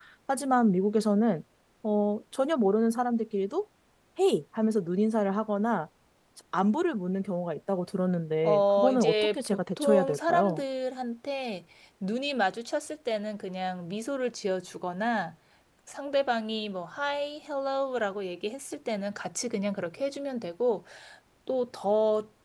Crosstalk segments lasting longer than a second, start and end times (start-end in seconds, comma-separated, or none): 8.4-10.6